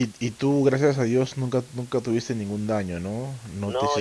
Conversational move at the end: taking over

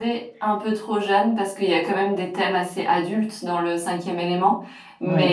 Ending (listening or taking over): listening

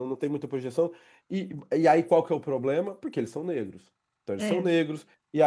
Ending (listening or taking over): listening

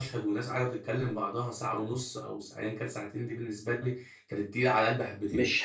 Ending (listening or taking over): taking over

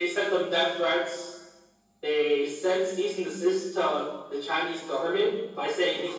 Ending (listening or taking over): listening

